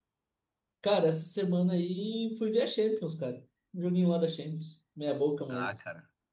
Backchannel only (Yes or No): No